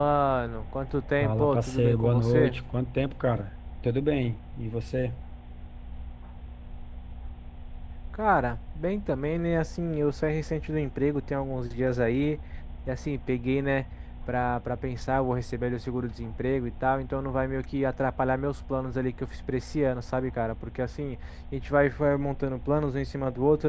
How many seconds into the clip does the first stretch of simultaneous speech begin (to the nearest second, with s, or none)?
1 s